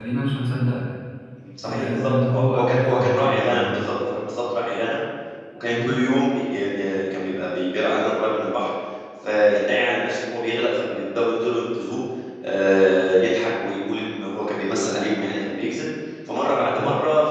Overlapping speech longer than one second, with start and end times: 1.6-3.8

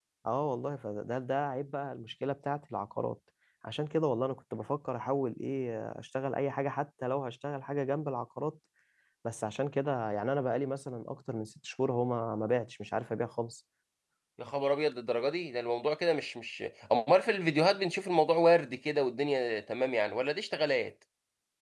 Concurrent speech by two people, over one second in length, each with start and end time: none

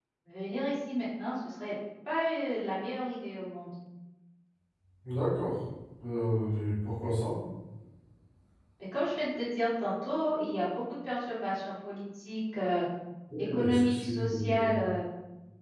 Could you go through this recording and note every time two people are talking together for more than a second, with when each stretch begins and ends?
13.4-14.8

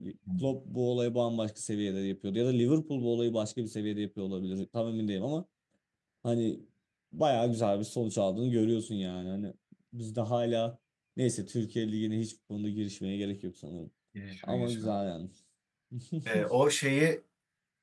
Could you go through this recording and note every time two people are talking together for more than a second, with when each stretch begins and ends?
none

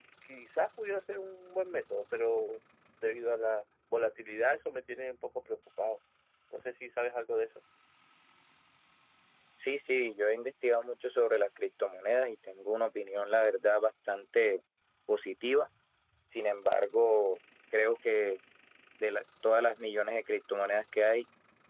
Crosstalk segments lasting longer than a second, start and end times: none

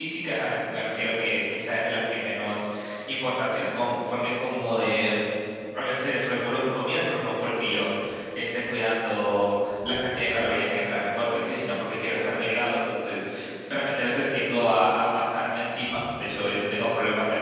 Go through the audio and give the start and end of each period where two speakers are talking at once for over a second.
none

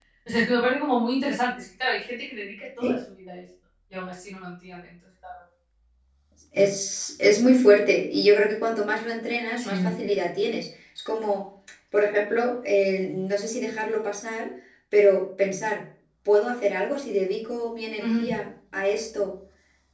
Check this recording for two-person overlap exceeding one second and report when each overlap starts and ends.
none

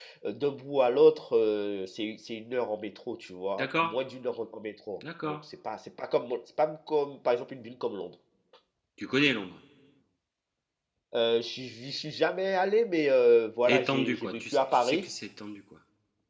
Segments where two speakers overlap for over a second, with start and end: 13.7-15.1

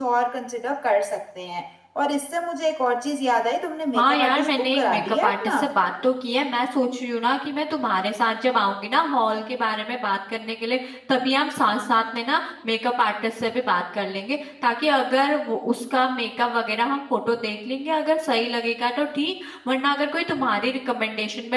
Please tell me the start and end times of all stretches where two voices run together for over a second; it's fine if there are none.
3.9-5.6

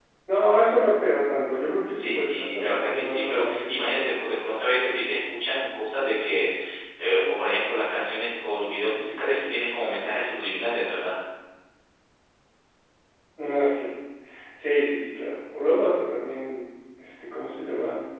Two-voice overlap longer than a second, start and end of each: 1.8-4.1

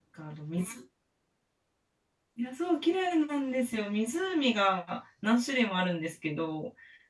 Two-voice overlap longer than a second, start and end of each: none

